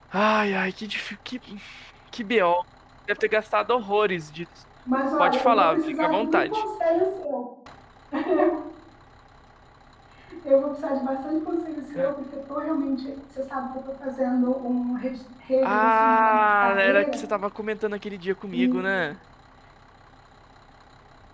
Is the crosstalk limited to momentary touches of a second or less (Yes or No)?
No